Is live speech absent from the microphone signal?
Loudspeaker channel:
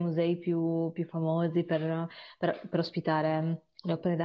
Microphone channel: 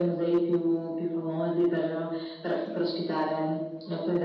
Yes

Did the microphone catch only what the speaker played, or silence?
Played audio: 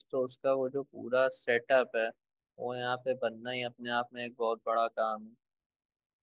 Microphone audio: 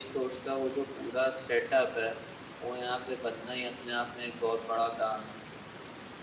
Yes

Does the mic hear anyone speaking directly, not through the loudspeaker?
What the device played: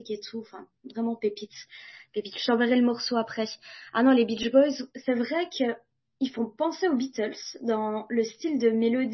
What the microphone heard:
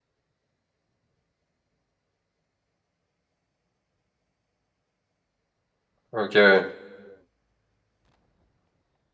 Yes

